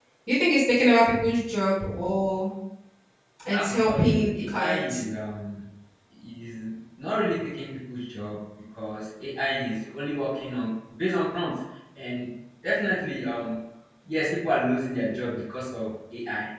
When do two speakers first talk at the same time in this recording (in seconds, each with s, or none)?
3.5 s